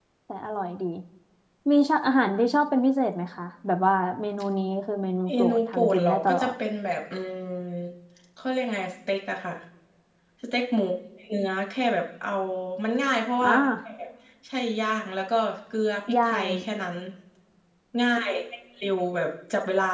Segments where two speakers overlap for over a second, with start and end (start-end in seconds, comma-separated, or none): 5.3-6.5